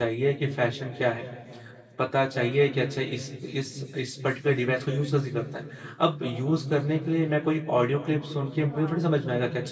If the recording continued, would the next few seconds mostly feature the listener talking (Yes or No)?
No